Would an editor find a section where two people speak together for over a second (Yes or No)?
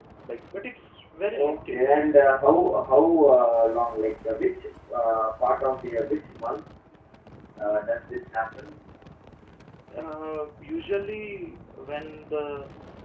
No